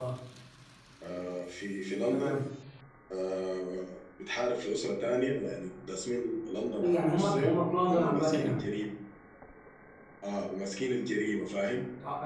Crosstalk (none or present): present